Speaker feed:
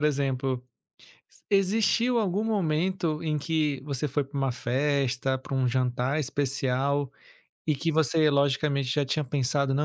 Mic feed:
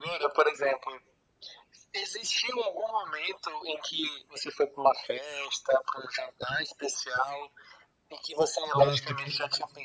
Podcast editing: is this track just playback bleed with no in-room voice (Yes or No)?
No